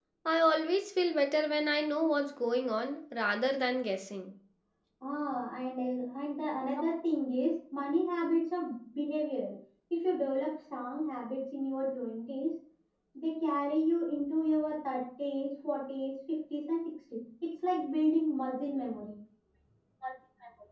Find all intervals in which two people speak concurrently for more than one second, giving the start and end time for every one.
none

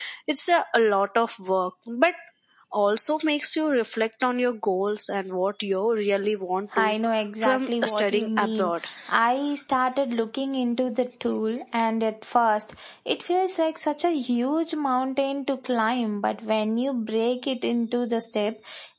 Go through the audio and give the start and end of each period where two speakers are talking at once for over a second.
7.4-8.7

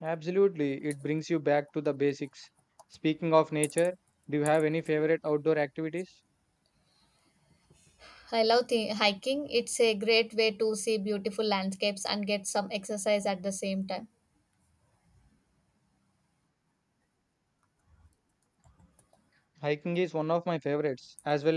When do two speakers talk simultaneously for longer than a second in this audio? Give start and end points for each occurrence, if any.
none

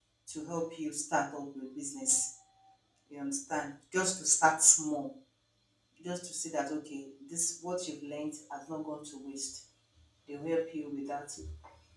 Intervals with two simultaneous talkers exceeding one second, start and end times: none

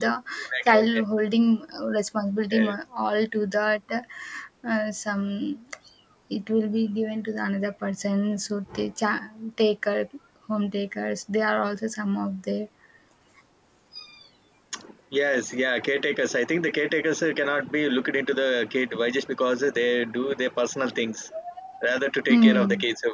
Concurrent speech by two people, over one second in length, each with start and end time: none

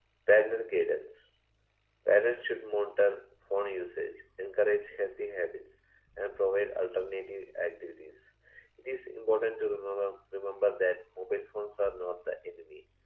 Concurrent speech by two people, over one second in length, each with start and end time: none

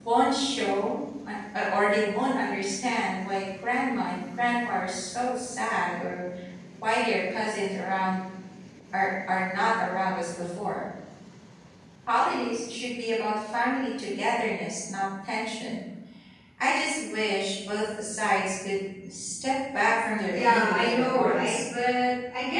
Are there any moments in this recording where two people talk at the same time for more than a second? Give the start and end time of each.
20.3-21.6

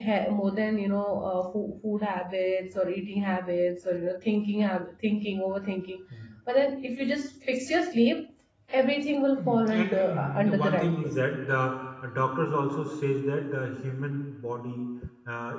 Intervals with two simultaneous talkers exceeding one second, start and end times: 9.3-11.1

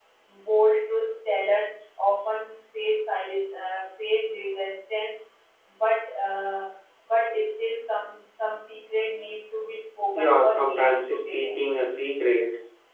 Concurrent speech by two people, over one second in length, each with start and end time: 10.1-11.6

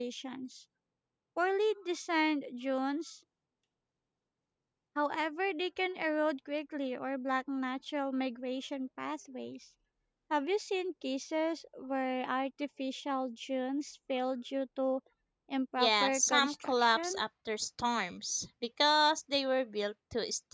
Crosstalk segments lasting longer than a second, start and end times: 15.8-17.2

